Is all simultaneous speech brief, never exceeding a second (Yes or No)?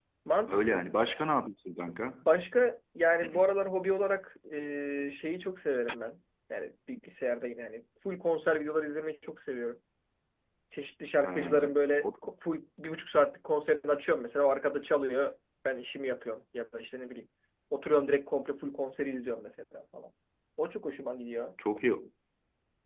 Yes